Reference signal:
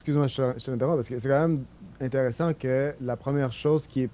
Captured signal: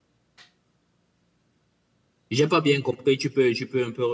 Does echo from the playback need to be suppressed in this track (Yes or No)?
No